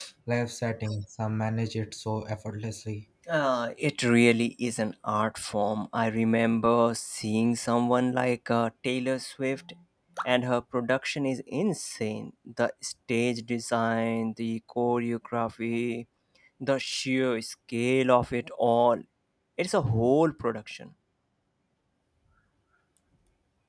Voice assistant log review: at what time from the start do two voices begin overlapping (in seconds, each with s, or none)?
none